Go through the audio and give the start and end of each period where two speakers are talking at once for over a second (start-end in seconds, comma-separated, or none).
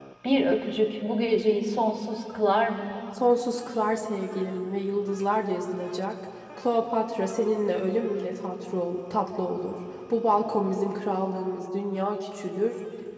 none